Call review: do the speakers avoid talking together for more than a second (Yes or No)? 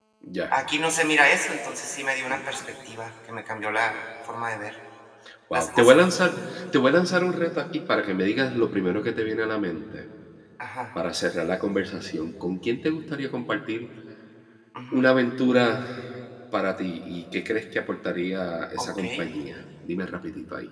Yes